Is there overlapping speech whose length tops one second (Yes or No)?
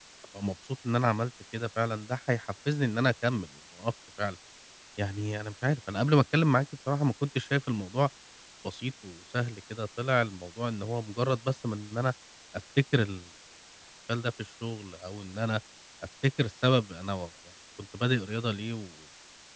No